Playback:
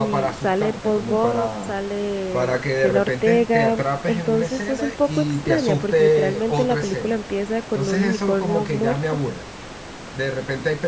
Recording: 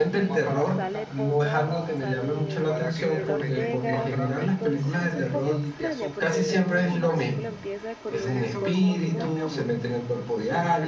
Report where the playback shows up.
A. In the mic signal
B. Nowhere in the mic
A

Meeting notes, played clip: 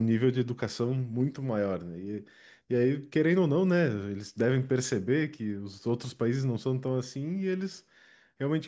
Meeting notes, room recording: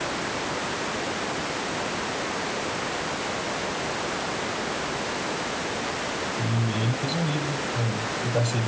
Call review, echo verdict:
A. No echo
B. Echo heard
A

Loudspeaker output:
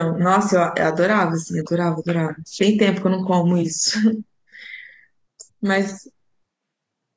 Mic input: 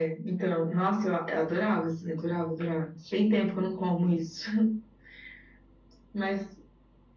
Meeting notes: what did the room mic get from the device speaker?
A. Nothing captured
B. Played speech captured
B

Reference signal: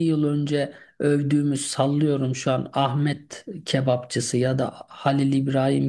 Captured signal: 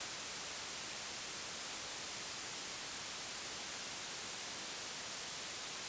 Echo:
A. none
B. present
A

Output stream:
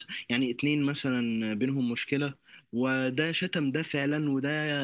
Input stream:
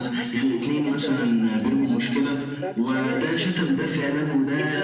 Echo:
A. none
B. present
B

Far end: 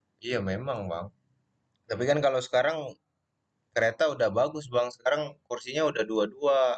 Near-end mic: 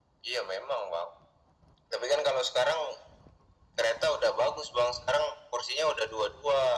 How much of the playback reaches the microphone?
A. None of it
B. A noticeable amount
B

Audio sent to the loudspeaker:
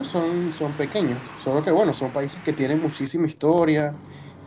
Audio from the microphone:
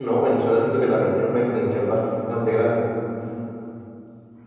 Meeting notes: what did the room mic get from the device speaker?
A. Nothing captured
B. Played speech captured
A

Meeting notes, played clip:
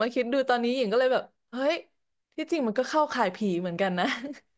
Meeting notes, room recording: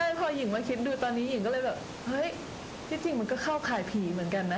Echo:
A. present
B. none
A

